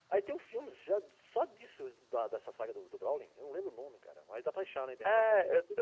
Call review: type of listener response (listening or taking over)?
taking over